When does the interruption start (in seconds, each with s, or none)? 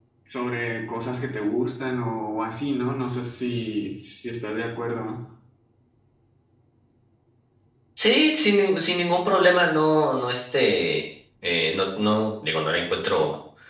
none